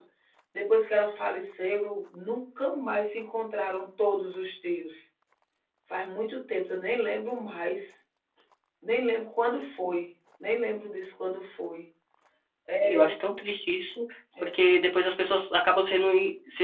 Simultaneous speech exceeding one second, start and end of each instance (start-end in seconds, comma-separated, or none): none